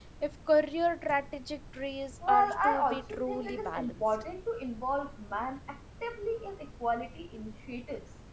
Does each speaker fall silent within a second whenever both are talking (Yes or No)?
No